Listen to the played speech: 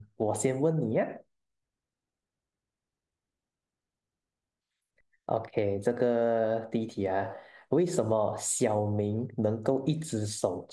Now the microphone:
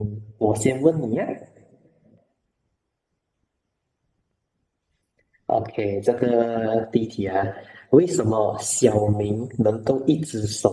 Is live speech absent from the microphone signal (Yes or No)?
Yes